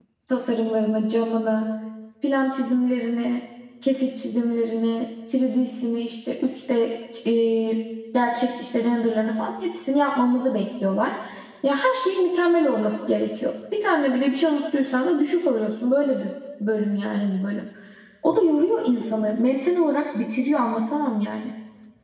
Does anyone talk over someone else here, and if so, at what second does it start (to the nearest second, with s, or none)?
none